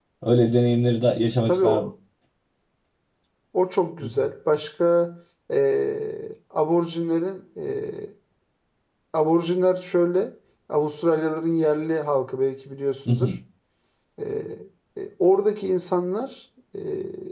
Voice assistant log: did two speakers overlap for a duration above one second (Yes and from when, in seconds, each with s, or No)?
No